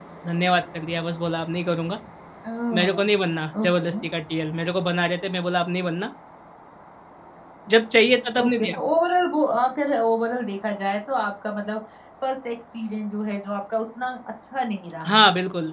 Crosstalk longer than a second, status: none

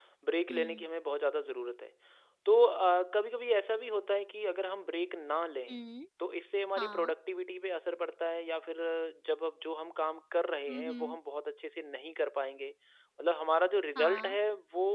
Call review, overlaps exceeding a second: none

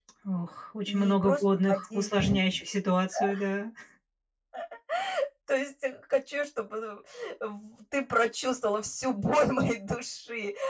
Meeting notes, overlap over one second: present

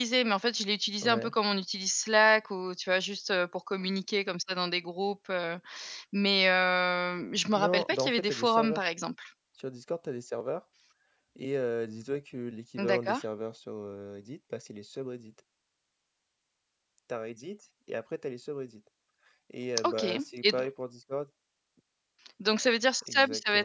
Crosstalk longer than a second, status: present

